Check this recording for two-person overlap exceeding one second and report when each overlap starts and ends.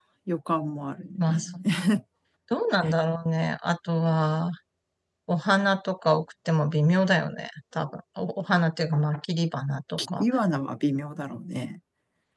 none

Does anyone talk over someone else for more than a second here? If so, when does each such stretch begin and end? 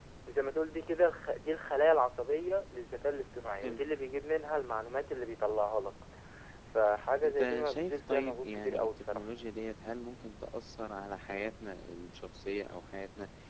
7.2-9.2

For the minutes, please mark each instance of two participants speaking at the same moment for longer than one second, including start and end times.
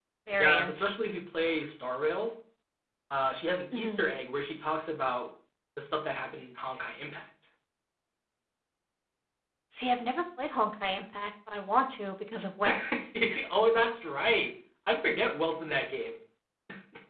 none

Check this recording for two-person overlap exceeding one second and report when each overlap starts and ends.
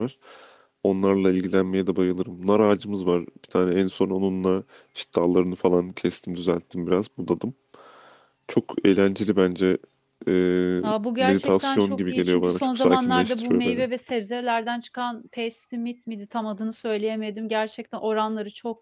11.2-13.8

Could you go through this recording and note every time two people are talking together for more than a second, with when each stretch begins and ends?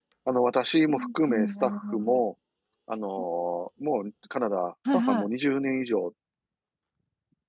0.9-2.2

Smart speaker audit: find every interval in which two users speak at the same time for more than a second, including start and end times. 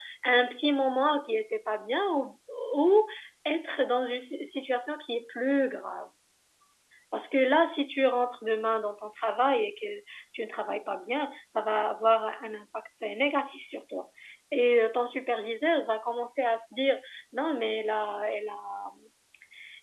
none

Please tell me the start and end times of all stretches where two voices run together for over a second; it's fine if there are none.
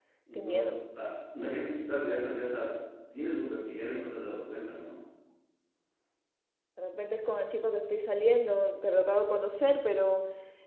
none

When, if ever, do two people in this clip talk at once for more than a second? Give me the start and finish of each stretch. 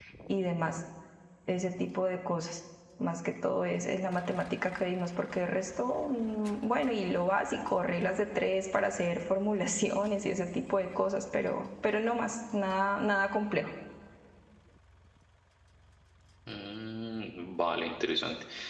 none

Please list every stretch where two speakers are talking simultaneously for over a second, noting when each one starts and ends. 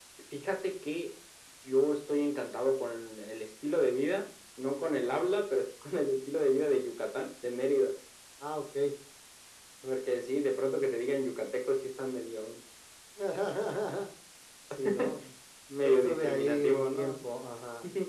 15.8-17.2

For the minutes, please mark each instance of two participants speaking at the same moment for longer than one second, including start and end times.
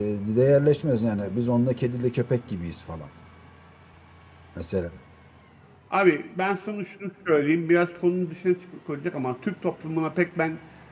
none

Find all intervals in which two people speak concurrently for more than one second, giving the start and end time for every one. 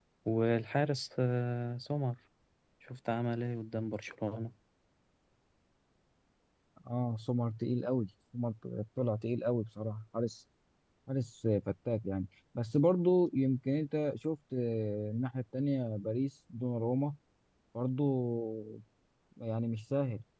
none

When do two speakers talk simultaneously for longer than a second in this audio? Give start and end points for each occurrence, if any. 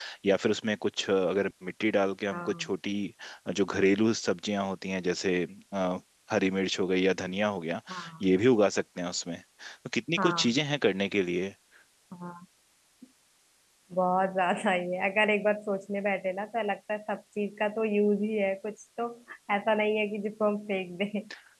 none

